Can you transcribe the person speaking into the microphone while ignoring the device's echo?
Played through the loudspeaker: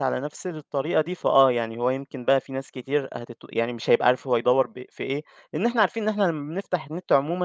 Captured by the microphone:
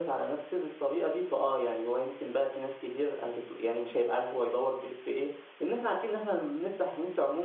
none

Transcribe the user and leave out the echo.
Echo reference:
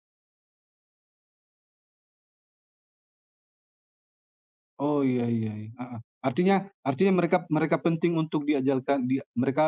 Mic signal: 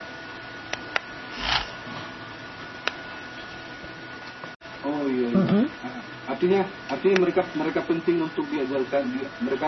mhm

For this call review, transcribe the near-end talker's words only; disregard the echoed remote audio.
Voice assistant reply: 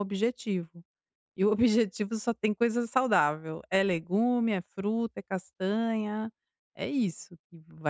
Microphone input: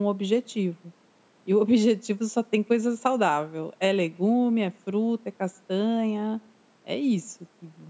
none

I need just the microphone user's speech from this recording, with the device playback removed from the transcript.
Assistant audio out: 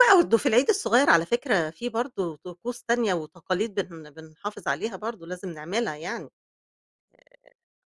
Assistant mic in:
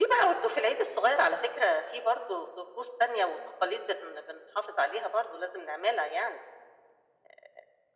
none

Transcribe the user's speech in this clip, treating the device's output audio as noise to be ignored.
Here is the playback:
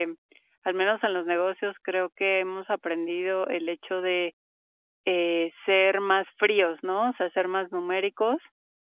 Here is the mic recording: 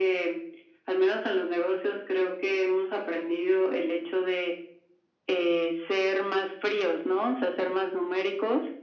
none

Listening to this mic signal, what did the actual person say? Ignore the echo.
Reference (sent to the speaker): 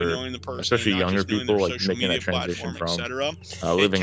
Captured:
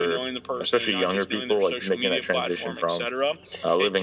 none

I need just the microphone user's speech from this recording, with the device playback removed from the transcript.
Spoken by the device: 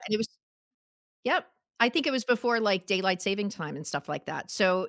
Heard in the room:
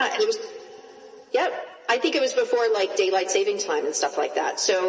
none

